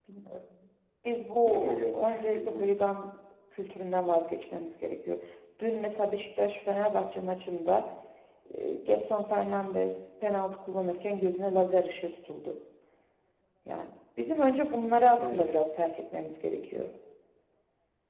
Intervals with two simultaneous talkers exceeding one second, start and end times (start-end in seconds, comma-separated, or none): 1.4-2.7